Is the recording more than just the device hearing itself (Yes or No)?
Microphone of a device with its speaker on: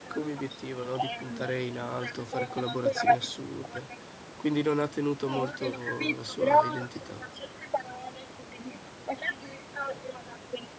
Yes